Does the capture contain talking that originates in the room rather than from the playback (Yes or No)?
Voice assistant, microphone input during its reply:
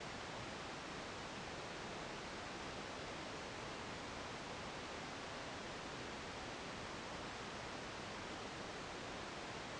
No